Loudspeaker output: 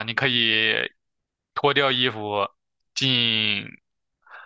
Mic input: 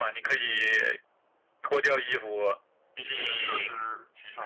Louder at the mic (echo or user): echo